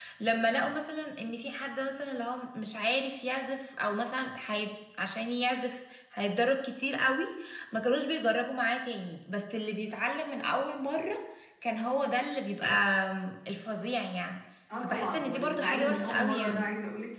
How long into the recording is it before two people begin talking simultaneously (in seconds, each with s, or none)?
14.8 s